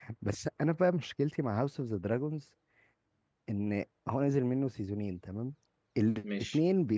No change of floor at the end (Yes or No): Yes